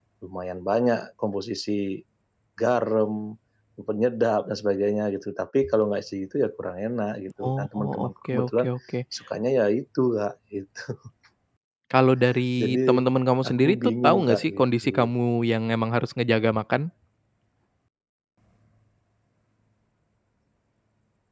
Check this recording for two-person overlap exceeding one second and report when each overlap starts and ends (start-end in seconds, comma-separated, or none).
7.4-8.7, 13.4-15.1